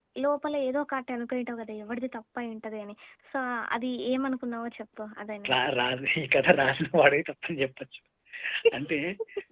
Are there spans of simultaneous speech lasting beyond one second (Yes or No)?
No